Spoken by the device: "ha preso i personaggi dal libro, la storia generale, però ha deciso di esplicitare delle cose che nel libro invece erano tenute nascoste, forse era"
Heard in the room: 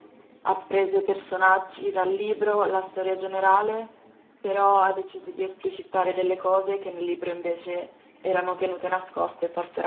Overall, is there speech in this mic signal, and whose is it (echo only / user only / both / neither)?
echo only